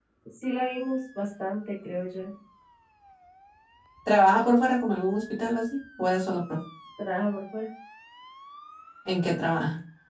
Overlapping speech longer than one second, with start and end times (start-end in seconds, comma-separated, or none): none